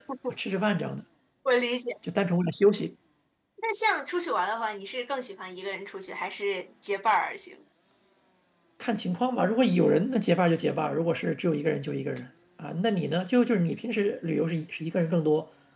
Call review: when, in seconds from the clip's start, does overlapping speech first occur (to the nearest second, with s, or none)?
none